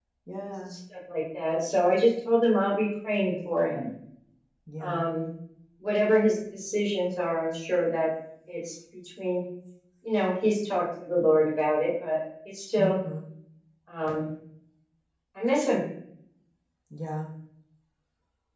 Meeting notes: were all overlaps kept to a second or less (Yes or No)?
Yes